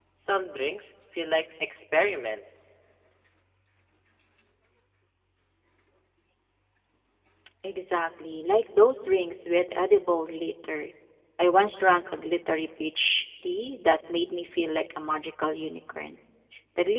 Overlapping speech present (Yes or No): No